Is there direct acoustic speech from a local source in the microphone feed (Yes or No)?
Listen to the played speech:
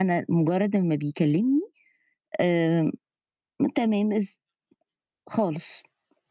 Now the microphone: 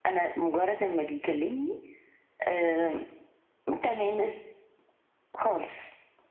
No